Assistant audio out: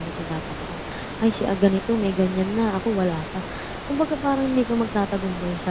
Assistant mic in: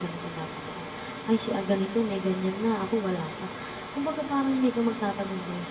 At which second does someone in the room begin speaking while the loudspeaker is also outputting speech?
none

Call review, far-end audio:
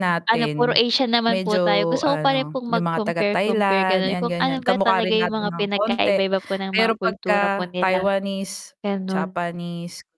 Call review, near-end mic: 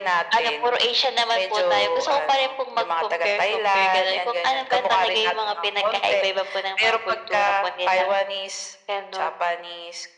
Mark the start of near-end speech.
none

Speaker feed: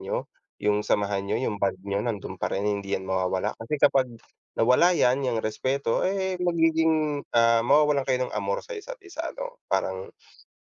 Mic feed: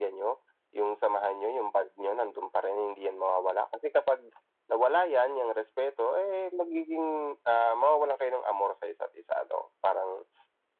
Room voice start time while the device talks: none

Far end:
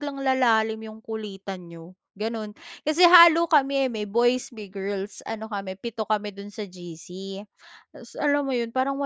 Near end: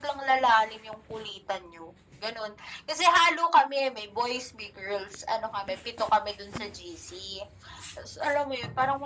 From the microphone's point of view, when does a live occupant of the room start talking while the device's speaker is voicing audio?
none

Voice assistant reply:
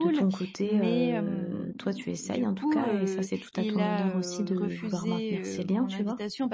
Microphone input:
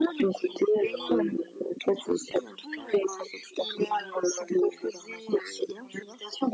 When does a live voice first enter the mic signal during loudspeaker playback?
none

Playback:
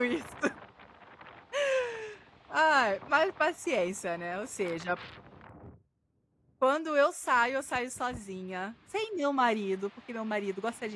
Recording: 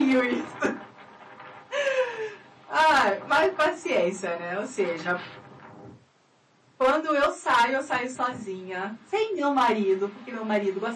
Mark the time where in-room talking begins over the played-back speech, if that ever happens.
none

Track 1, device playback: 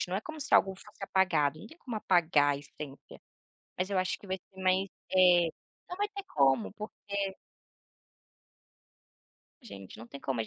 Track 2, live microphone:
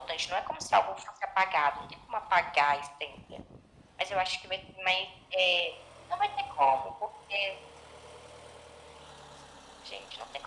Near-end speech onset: none

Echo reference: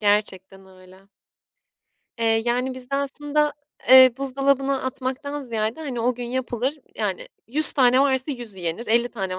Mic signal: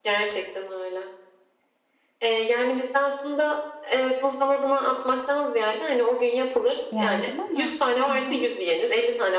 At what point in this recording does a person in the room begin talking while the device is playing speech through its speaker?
6.9 s

